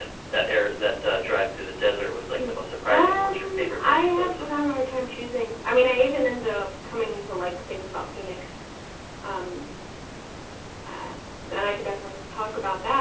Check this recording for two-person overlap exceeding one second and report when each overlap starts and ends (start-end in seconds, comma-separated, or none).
2.9-4.4